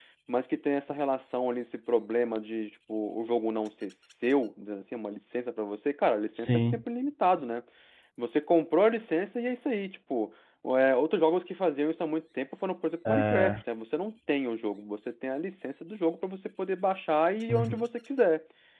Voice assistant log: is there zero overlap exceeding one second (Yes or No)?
Yes